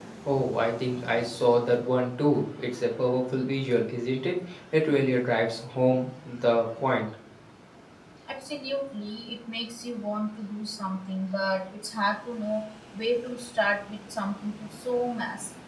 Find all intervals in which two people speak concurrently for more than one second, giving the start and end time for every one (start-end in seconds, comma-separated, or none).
none